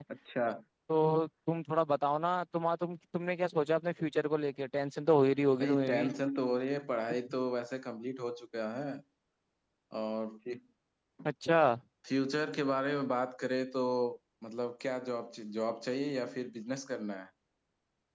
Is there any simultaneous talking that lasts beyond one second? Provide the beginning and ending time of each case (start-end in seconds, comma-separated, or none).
none